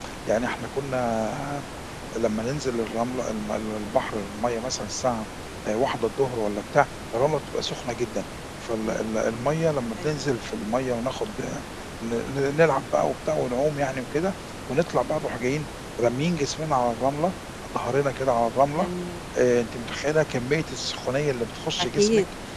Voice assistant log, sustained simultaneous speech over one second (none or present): none